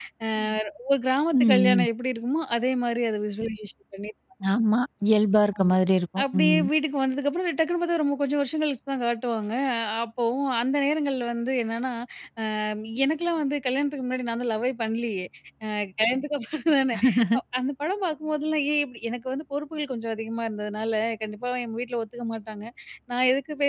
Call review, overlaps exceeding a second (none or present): none